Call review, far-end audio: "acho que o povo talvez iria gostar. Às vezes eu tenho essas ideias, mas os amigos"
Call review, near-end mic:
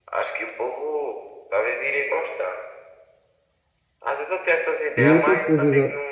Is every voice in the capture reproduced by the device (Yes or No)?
No